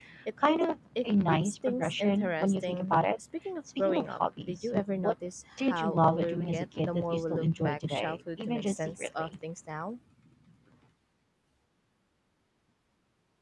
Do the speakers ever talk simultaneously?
Yes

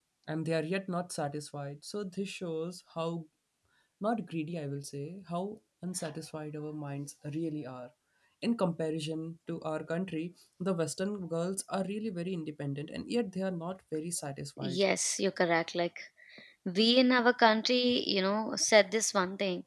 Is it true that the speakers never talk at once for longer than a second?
Yes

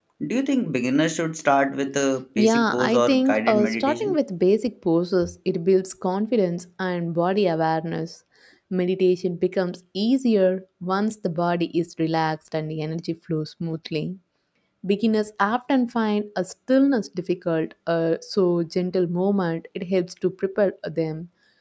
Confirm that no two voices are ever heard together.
No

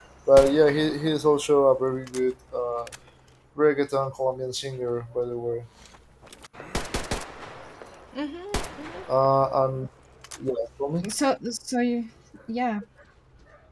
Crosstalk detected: No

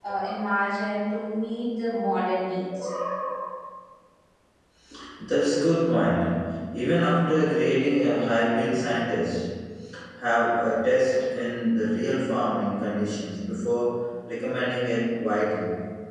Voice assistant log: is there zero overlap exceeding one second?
Yes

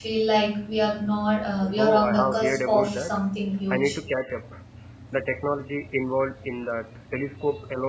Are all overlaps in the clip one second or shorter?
No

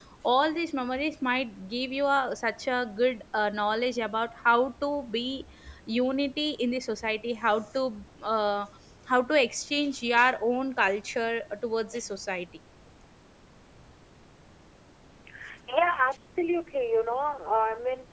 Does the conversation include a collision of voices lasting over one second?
No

